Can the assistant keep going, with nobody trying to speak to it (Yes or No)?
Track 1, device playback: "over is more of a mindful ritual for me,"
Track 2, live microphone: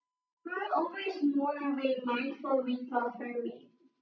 Yes